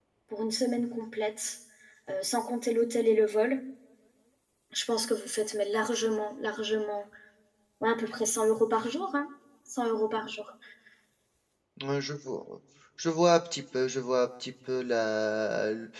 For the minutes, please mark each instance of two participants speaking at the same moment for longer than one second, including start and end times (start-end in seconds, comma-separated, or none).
none